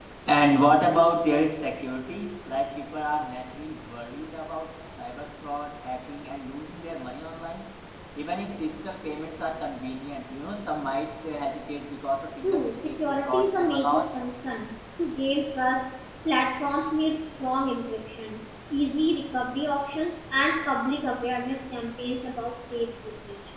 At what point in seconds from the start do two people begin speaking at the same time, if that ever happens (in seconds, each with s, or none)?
12.4 s